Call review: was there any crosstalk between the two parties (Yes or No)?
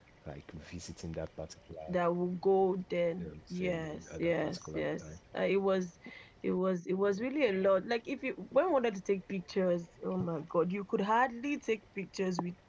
Yes